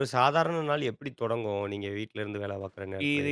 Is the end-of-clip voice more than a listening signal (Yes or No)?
Yes